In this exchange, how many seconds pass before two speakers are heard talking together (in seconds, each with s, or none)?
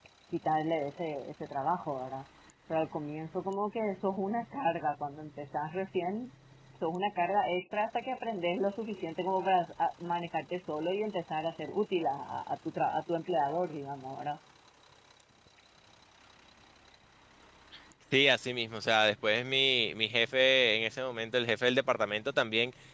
none